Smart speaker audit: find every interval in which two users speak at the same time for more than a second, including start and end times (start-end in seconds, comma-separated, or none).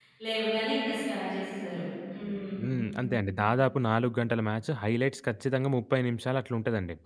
none